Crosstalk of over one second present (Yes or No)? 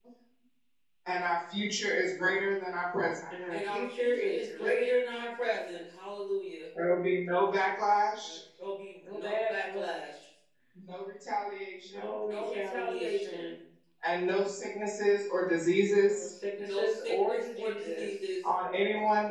Yes